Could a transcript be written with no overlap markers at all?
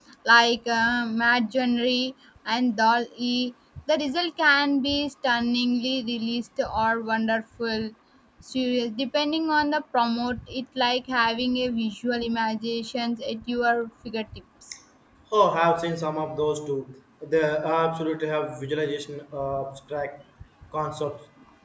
Yes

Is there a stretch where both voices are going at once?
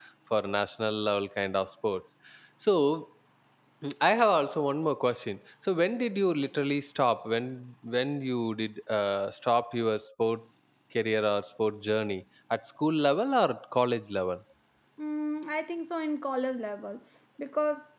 No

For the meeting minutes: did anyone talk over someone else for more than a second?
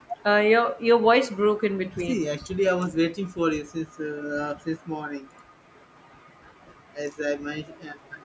No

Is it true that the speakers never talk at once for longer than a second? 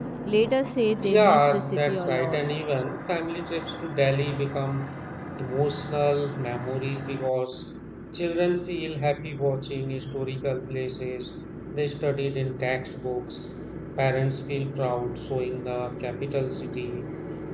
No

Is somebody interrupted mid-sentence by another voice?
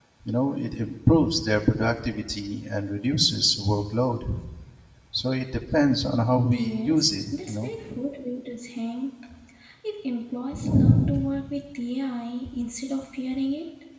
Yes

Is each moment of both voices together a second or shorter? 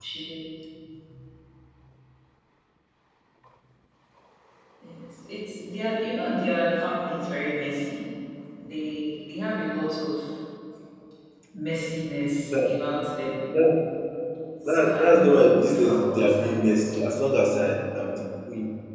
No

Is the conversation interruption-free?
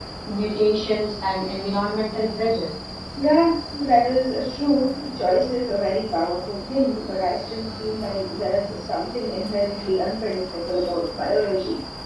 Yes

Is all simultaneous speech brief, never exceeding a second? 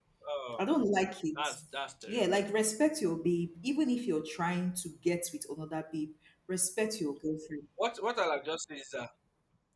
Yes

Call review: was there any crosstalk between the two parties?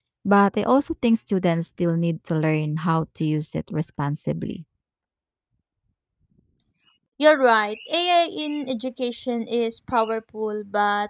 No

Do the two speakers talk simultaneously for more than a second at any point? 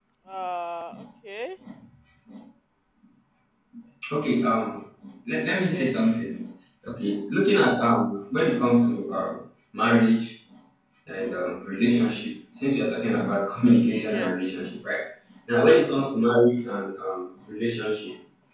No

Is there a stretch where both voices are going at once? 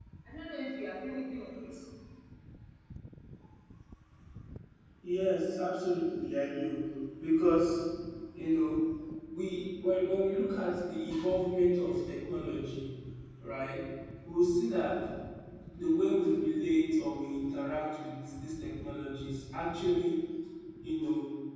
No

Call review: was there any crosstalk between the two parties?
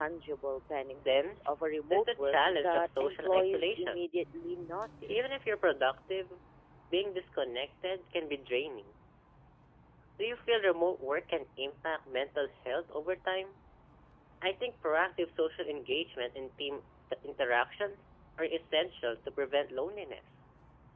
Yes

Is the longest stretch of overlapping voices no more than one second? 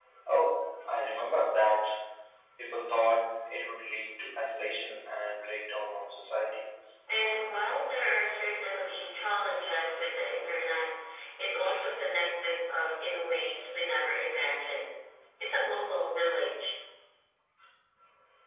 Yes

